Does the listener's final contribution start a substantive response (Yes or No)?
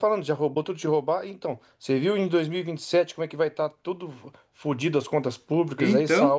No